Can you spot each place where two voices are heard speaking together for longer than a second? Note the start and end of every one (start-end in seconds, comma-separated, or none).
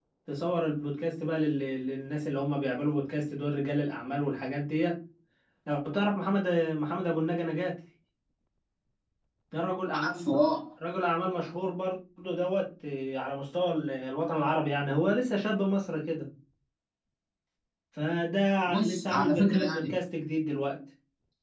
18.6-19.9